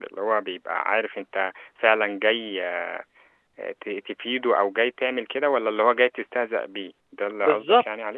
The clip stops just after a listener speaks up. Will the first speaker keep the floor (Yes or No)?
No